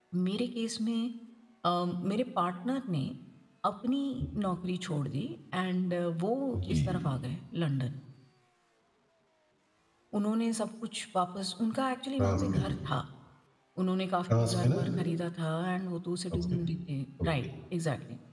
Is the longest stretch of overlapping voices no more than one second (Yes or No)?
Yes